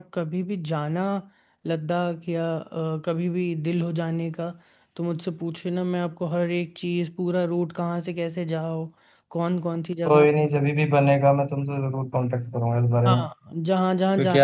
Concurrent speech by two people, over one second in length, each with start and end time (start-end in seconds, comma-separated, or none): none